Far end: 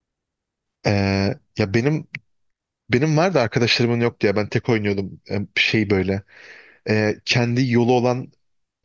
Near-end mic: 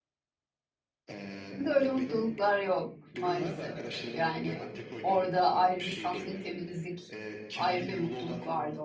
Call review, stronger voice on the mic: user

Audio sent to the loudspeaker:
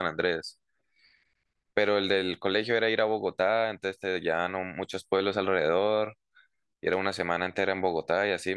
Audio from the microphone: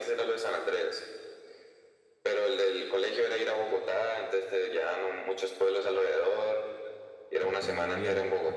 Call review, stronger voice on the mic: echo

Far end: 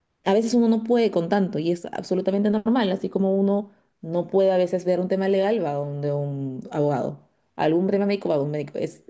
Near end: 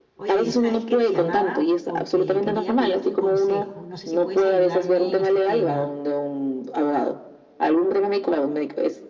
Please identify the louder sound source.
echo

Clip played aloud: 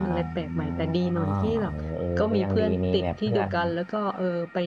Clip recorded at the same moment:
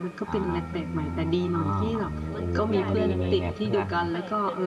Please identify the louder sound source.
echo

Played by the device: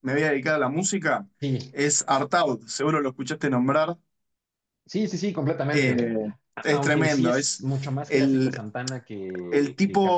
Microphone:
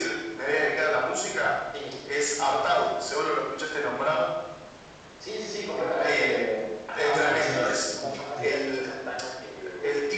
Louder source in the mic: echo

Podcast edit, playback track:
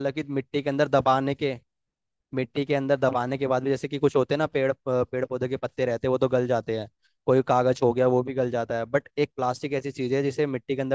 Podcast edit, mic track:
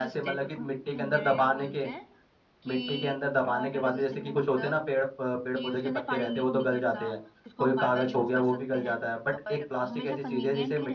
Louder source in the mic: echo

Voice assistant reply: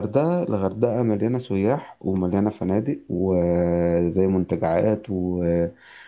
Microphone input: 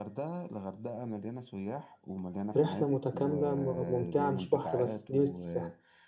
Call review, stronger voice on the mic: user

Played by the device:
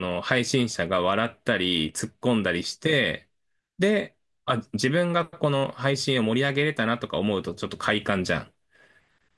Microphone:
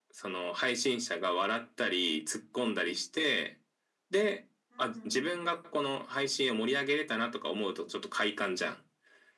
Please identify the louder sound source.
echo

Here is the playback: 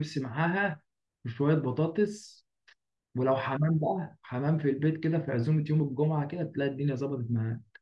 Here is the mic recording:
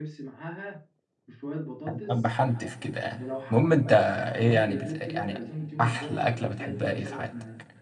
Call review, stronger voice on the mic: user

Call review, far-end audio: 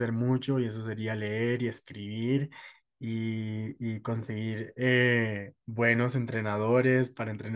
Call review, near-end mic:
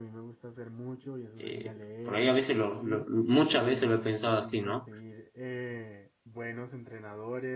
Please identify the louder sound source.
user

